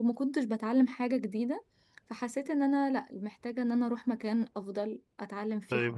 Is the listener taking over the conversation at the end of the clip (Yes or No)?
Yes